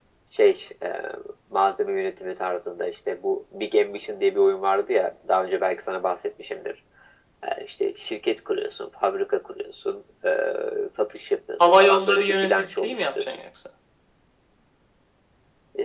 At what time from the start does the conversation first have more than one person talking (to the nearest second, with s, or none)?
12 s